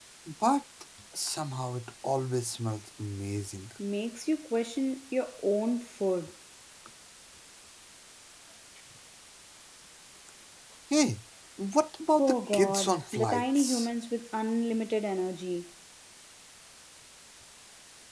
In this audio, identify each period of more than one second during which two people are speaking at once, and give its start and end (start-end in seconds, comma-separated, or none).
12.1-13.9